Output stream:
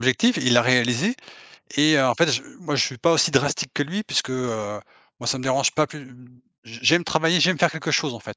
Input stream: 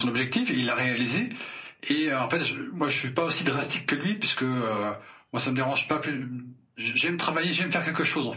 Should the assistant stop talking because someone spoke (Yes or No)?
No